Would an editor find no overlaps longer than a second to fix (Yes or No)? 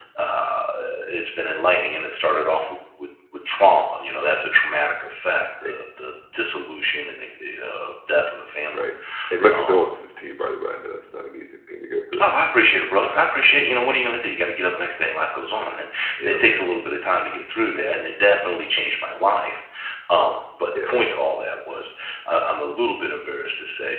Yes